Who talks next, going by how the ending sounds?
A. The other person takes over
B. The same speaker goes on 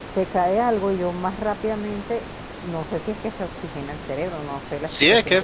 A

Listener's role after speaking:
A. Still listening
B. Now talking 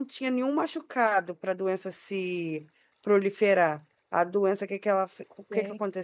A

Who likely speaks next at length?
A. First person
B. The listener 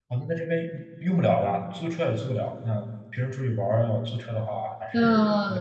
B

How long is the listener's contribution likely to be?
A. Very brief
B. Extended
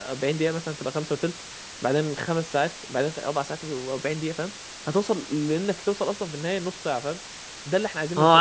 B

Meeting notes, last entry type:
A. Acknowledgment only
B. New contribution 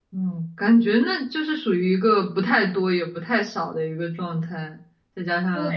B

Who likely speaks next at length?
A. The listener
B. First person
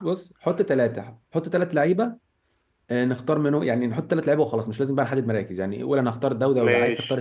B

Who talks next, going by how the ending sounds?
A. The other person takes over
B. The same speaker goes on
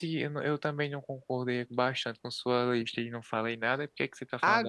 A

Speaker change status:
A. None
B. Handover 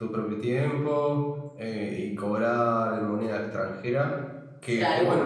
A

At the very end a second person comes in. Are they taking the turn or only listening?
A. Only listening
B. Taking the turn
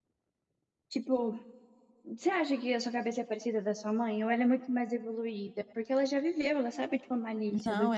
B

